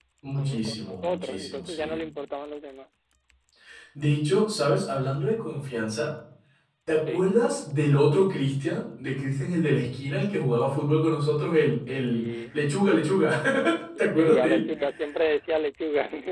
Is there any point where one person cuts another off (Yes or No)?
Yes